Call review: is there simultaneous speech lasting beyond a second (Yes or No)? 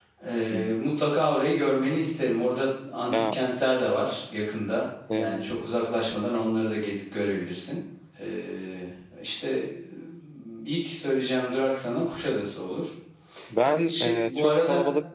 Yes